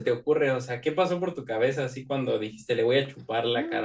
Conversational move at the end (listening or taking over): taking over